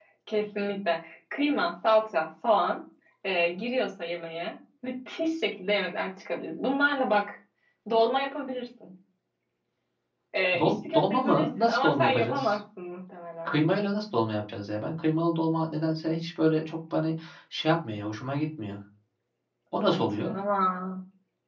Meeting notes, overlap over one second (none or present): present